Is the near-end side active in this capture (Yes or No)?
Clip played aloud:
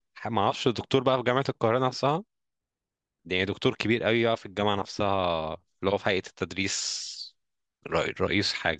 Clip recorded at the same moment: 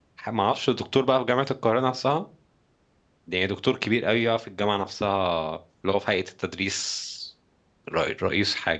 No